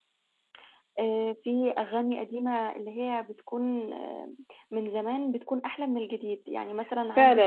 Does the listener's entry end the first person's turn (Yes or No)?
Yes